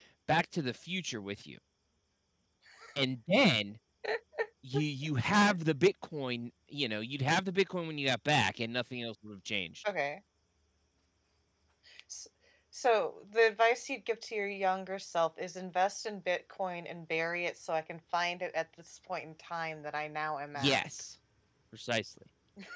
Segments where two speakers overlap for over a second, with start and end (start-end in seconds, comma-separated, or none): none